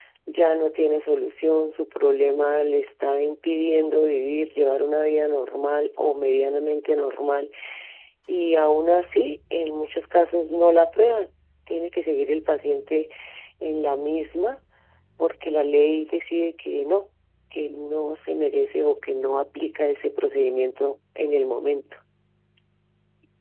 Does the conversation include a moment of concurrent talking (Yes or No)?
No